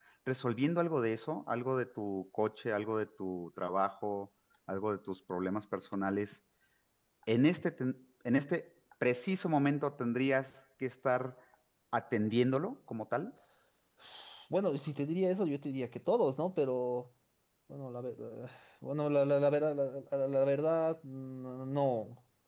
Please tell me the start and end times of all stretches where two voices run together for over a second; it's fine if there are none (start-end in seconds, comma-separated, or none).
none